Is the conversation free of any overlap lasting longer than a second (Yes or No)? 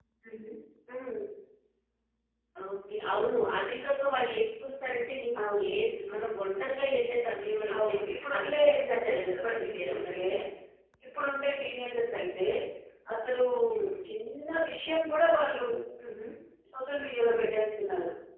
No